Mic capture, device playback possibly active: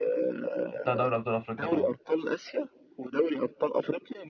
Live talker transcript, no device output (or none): بتاع دوري ابطال افريقيا طبعا